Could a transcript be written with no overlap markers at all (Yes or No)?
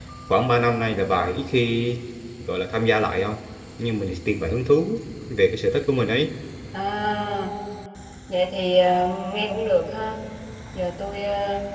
Yes